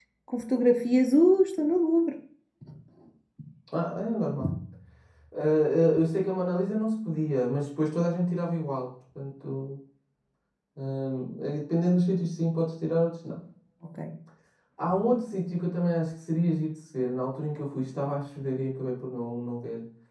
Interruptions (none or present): none